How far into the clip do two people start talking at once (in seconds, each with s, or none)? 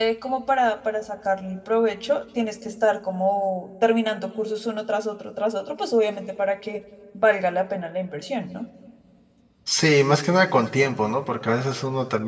none